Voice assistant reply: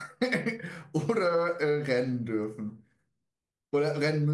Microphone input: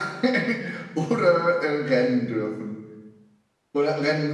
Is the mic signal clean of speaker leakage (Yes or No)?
No